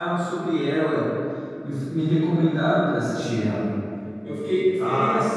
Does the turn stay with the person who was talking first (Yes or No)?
Yes